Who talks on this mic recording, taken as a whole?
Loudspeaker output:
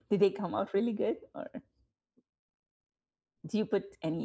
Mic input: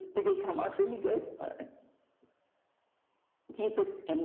echo only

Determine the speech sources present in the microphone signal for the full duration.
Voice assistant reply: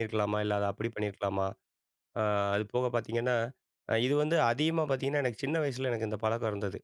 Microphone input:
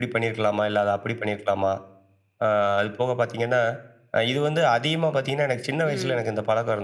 both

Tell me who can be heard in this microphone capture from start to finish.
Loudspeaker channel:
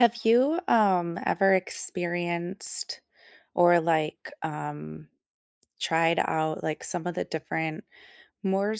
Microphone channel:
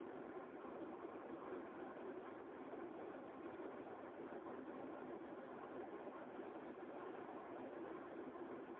neither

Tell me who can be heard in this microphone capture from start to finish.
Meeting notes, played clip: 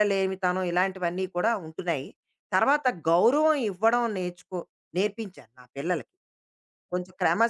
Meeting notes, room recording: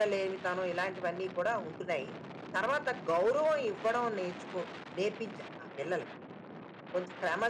echo only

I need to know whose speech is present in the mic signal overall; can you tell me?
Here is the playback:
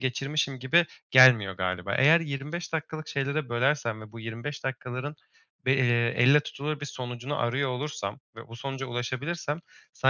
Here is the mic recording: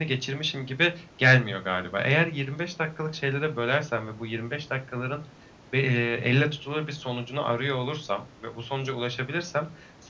echo only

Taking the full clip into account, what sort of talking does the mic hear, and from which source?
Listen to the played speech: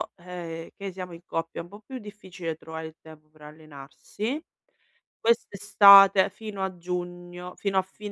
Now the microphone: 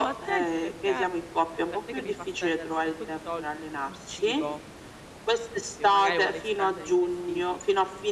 both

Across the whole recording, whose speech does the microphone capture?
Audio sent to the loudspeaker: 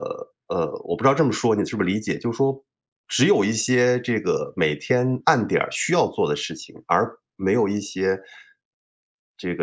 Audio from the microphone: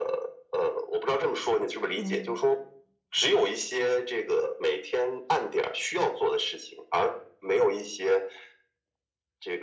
both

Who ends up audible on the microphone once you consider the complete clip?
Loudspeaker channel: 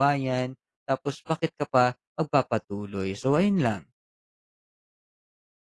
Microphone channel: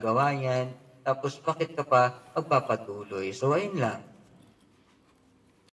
echo only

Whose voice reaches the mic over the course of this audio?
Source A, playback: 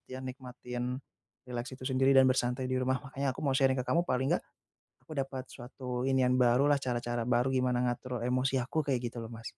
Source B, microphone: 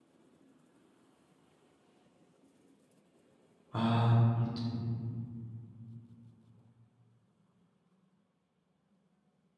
user only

